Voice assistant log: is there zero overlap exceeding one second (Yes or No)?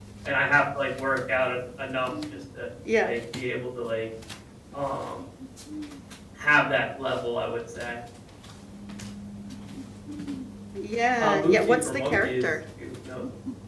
No